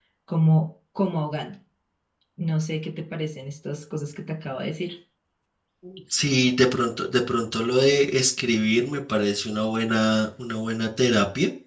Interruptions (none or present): none